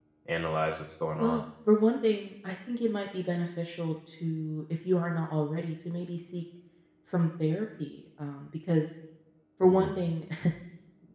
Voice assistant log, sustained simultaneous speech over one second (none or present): none